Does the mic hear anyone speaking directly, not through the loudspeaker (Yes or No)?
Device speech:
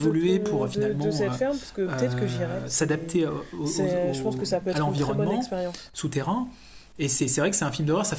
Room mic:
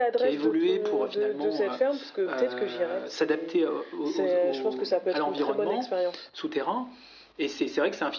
No